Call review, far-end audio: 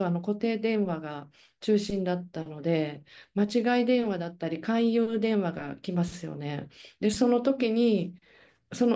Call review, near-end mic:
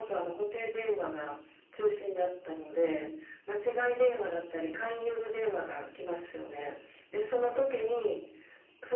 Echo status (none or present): present